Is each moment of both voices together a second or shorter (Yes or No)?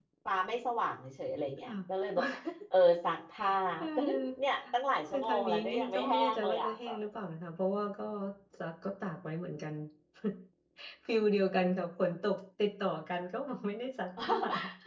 No